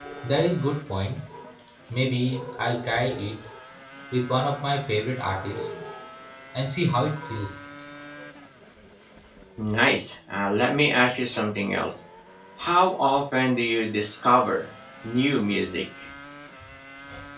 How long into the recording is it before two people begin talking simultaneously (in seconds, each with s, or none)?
none